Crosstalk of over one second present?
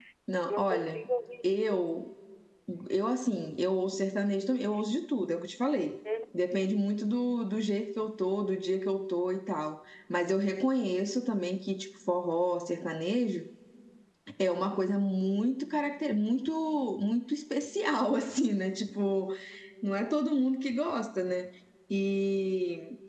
No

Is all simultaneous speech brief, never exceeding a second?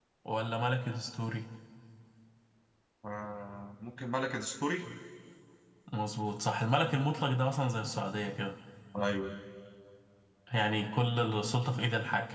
Yes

